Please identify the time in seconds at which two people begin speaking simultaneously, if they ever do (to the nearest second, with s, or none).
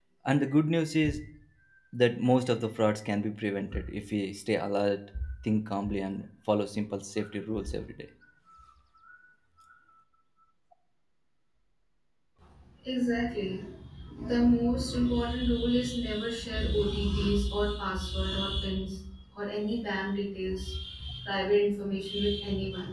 none